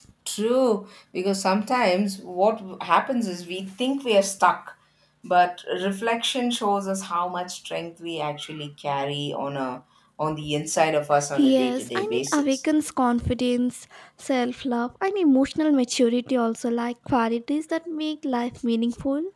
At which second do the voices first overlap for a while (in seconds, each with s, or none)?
11.4 s